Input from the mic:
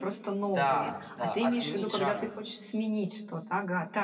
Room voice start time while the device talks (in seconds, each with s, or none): 0.5 s